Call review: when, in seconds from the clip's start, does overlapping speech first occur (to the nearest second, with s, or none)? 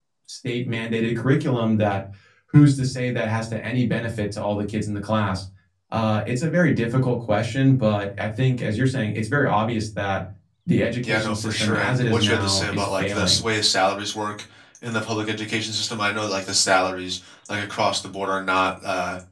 11 s